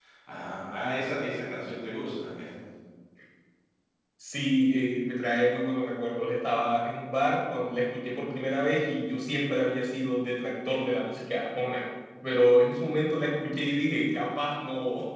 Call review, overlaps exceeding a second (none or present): none